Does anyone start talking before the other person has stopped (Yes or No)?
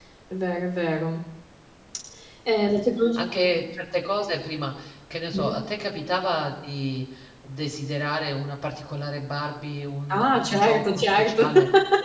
Yes